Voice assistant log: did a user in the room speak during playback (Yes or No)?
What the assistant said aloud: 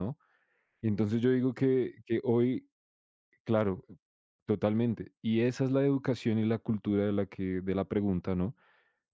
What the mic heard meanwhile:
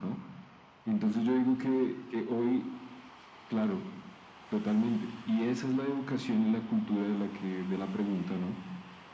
No